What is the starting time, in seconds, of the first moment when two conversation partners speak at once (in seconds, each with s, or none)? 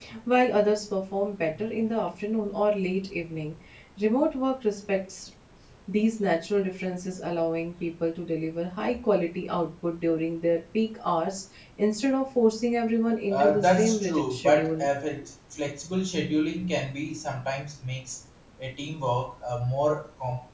13.3 s